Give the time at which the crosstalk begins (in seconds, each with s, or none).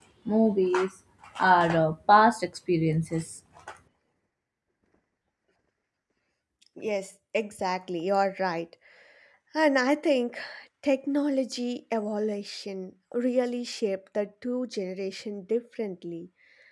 none